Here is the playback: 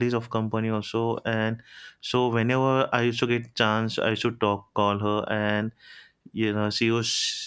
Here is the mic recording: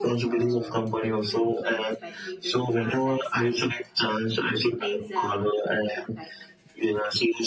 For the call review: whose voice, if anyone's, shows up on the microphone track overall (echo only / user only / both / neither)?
both